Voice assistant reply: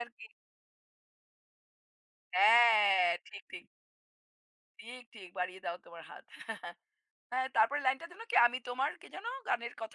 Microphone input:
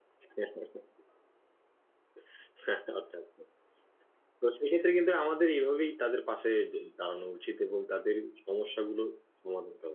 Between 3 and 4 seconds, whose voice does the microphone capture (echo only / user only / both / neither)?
user only